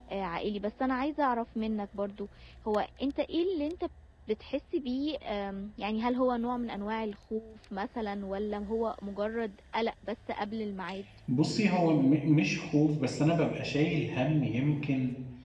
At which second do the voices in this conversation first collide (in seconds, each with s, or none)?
none